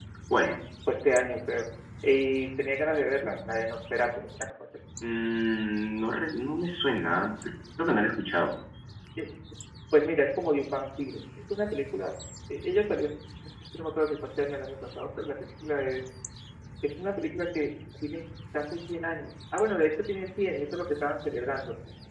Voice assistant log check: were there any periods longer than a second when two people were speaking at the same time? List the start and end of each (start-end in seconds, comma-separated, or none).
none